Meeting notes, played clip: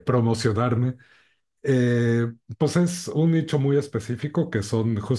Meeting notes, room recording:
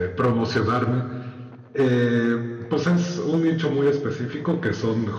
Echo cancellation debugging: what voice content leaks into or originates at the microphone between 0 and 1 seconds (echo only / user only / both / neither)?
echo only